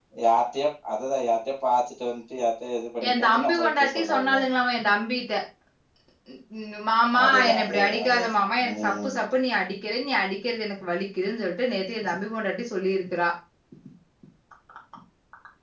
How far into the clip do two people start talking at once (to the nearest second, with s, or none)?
3 s